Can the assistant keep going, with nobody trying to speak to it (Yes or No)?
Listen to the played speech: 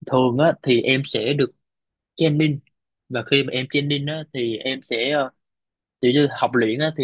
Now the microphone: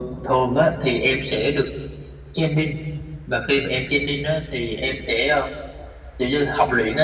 Yes